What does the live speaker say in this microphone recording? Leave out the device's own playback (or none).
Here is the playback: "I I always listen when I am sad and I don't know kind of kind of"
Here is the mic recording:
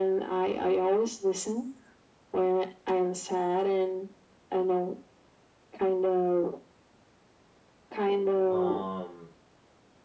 um,